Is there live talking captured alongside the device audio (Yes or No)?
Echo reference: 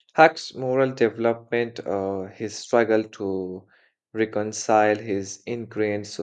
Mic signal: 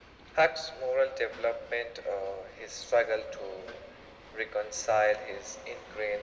No